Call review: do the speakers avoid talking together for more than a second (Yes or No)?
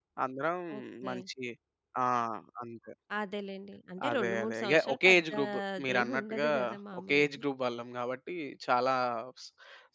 No